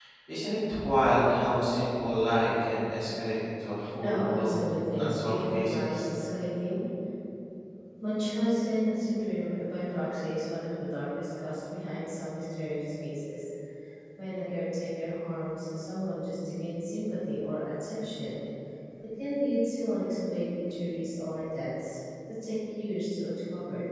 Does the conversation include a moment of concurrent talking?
Yes, from 4.0 s

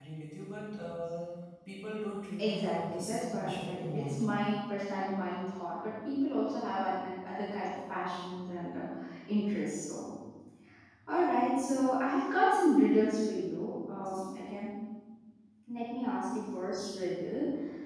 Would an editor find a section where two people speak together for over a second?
Yes, from 2.4 s

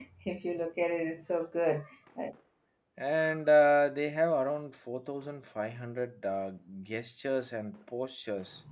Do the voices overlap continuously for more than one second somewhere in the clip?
No

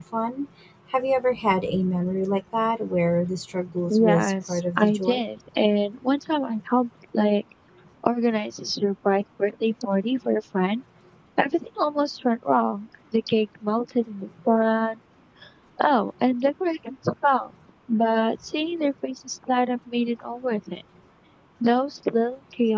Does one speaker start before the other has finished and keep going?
Yes, from 3.9 s

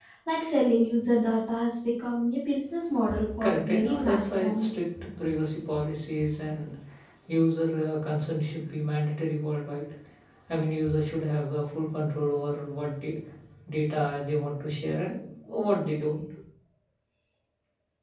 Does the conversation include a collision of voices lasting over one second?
Yes, from 3.4 s

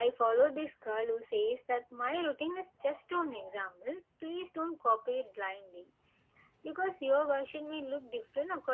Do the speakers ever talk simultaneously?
No

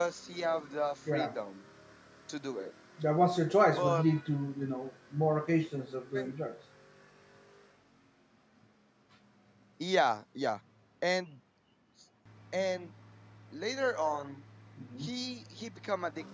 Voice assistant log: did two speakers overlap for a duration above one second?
No

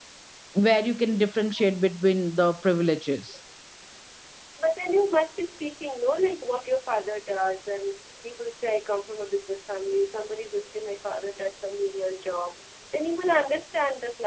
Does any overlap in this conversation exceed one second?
No

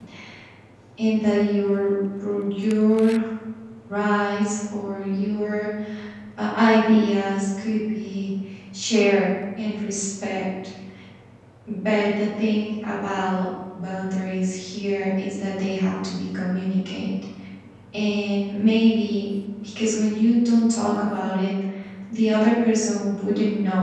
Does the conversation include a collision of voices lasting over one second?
No

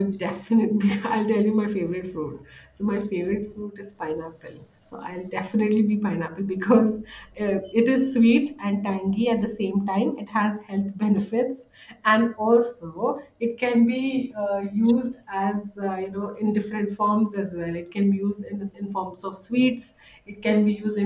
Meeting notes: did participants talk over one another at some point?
No

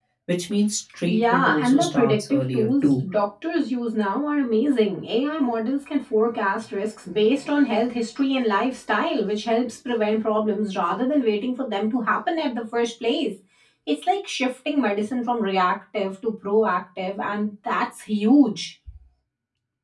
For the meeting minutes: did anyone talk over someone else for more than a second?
Yes, from 1.1 s

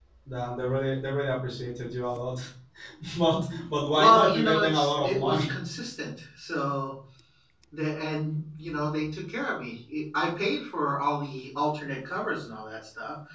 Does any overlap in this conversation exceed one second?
Yes, from 3.9 s

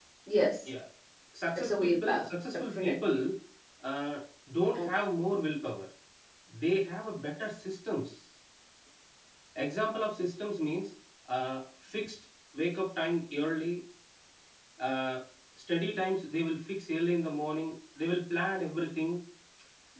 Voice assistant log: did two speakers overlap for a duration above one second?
Yes, from 1.6 s

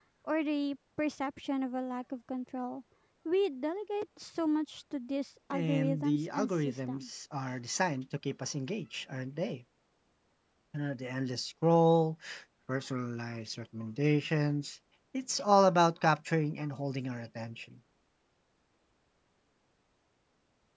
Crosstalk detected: Yes, from 5.5 s

